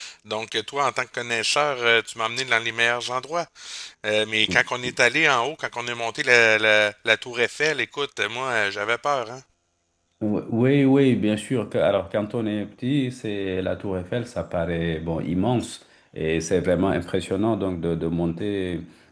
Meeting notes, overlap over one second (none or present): none